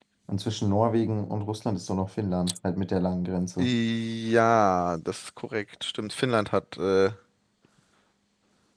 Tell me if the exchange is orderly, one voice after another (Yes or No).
Yes